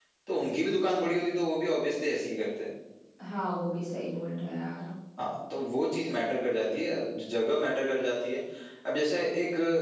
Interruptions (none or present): none